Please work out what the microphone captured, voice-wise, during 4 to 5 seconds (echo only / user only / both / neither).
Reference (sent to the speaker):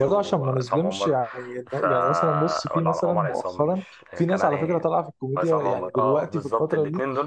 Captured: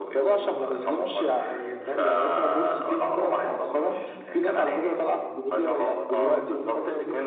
both